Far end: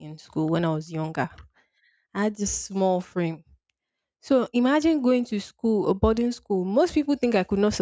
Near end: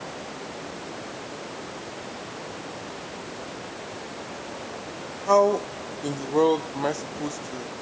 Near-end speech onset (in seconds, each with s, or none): 5.2 s